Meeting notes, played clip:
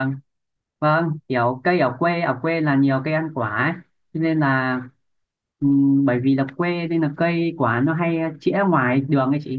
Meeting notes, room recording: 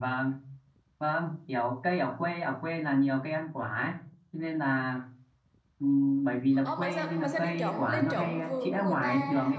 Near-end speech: present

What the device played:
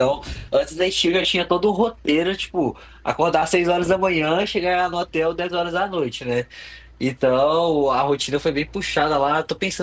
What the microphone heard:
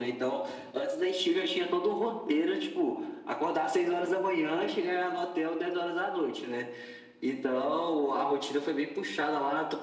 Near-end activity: none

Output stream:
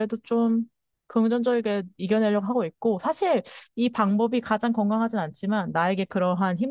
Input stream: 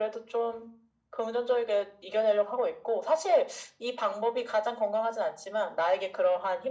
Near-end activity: none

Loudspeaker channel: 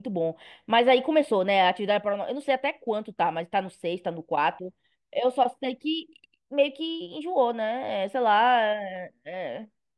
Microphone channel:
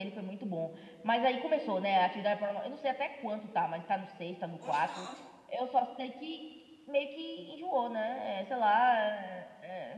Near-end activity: present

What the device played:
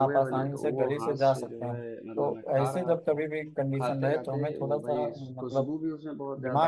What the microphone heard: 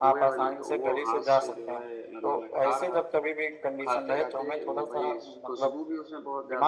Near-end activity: none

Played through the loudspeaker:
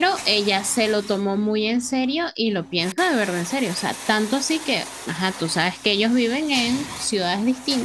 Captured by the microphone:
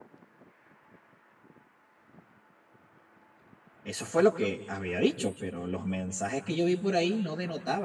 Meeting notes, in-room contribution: present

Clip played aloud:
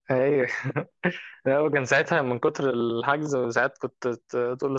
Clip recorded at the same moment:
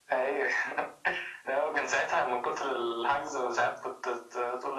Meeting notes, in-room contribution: none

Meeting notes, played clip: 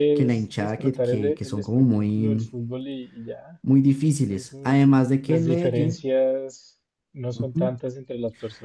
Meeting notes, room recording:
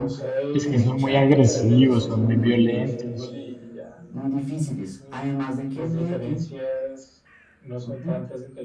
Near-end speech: present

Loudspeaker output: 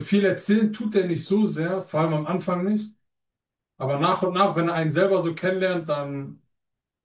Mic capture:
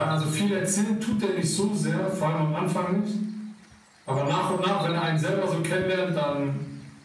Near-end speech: none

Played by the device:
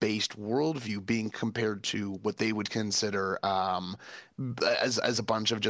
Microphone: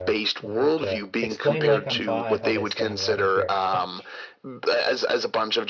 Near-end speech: present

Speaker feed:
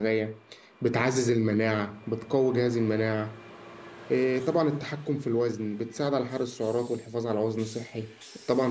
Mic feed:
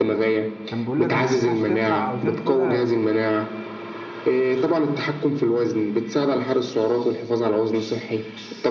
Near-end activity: present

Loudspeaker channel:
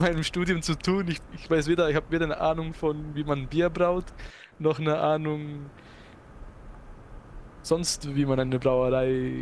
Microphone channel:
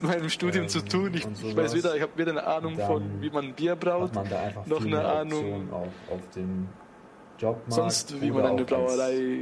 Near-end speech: present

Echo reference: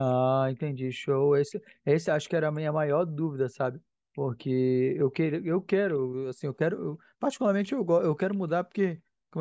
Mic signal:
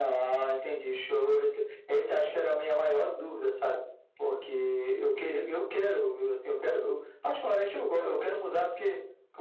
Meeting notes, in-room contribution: none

